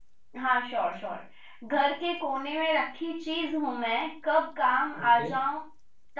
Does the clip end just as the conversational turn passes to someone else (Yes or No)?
No